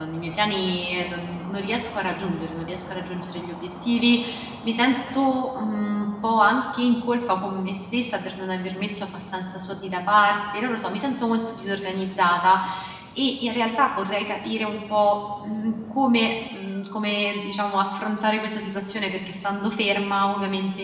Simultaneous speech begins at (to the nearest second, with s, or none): none